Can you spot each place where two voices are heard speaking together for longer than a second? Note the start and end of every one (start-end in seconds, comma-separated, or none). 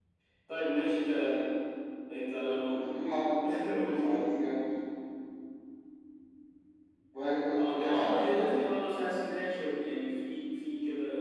7.5-9.1